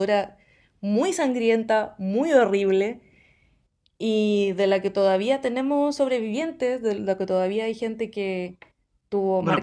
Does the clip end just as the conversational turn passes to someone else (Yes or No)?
Yes